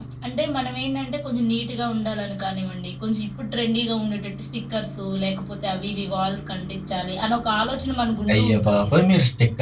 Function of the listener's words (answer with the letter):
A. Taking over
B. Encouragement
A